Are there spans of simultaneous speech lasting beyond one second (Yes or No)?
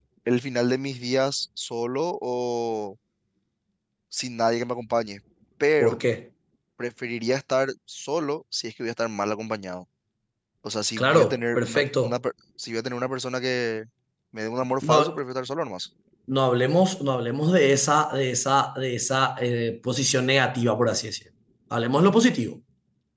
Yes